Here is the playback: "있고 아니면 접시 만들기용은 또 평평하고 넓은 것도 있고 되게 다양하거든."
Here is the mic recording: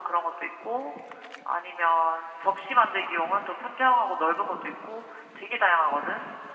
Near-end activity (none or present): none